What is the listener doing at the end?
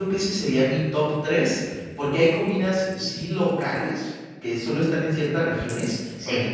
listening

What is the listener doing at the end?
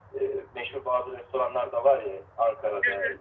listening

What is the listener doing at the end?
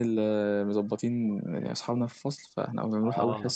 listening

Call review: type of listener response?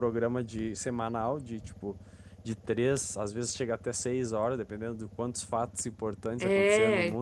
listening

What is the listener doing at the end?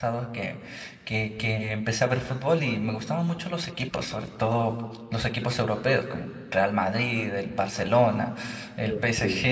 listening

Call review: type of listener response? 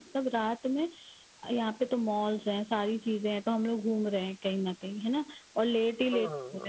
listening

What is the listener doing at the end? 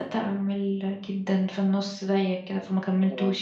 taking over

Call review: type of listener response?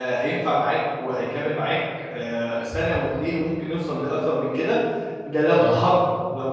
listening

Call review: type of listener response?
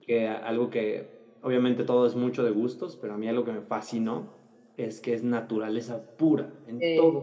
listening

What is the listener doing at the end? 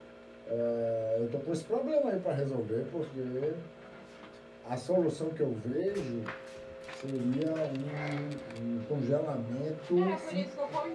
taking over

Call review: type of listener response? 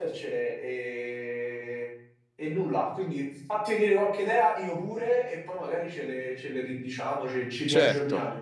taking over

